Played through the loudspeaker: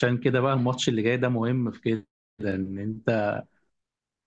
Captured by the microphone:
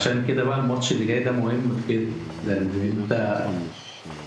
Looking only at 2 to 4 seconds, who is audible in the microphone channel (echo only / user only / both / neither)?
both